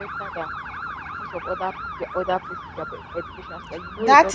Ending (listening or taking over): taking over